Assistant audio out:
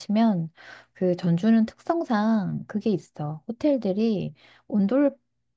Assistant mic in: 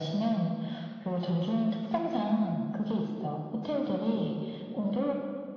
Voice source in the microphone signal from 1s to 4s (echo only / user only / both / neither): echo only